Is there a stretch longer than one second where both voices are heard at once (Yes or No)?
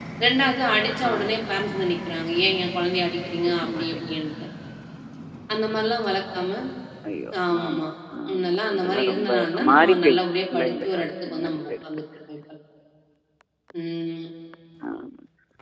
Yes